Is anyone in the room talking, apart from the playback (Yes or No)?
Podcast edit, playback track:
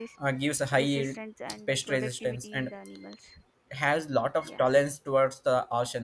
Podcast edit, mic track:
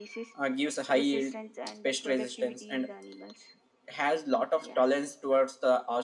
No